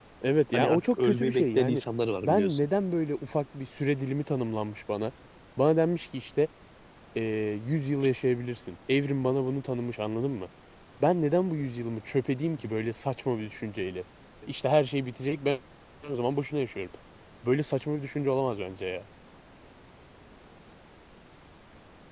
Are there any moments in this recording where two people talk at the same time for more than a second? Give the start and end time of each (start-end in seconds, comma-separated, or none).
0.5-1.8